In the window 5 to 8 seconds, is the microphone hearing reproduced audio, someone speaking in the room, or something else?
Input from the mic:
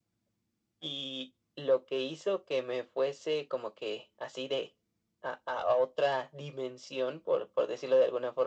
echo only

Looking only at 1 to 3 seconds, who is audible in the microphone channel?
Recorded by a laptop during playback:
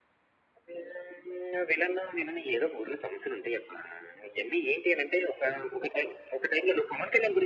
echo only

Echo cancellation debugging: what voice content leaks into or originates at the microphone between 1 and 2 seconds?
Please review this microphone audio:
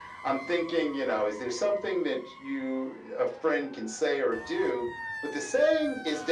echo only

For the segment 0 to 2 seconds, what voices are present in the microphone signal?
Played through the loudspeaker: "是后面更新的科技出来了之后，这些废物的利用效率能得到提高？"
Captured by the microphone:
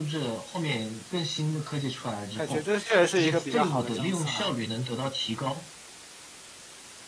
echo only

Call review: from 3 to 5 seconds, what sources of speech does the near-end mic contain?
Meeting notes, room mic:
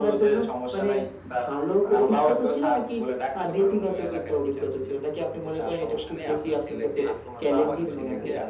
echo only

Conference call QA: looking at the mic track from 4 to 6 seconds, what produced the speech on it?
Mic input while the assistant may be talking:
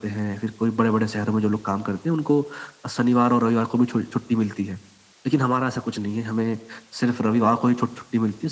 echo only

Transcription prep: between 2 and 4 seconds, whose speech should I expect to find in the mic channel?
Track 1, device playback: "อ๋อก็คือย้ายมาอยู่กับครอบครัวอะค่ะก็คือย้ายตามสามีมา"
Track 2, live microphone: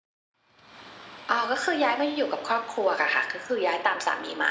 echo only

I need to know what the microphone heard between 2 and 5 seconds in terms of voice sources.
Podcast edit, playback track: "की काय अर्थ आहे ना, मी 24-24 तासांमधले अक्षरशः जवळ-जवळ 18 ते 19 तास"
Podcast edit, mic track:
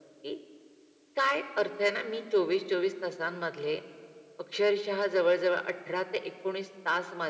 echo only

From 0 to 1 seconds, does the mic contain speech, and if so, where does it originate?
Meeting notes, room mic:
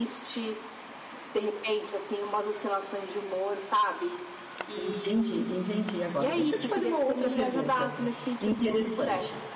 echo only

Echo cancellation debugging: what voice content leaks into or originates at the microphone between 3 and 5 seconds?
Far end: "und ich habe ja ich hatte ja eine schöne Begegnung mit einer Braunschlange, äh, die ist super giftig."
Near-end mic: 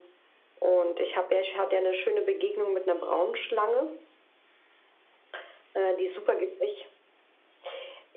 echo only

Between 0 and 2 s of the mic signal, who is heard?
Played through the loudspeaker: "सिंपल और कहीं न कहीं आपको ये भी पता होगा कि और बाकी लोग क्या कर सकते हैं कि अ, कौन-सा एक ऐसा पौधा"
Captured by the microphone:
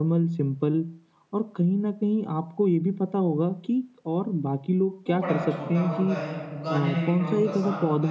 echo only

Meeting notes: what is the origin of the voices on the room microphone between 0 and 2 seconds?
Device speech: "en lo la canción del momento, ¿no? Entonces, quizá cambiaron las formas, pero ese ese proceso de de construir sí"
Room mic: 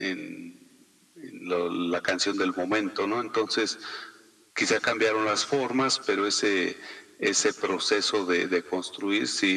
echo only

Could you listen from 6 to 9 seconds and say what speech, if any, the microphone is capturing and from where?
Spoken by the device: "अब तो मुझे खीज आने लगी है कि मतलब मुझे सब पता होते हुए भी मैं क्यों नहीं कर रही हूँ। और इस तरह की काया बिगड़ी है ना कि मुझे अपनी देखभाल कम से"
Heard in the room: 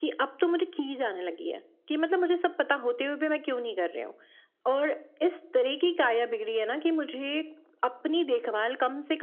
echo only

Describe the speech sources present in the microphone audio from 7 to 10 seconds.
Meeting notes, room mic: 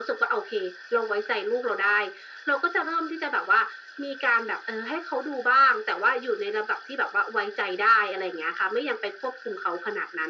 echo only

